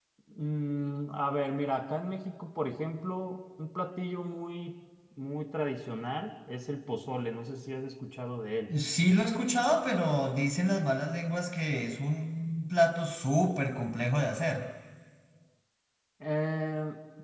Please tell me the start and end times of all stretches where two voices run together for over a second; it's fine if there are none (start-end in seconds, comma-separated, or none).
none